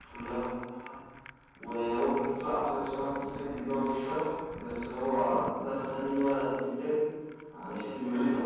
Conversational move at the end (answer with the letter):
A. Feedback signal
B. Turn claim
A